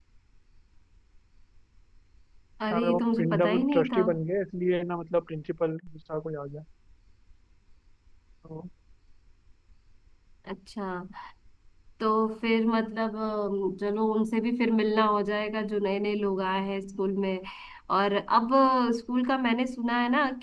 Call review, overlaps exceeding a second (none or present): present